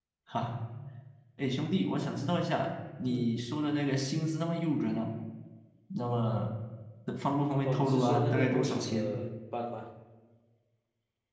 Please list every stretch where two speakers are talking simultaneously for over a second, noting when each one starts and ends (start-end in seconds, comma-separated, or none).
7.7-9.2